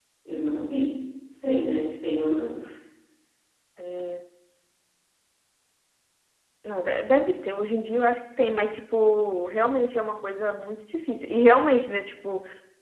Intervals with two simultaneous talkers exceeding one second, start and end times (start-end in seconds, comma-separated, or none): none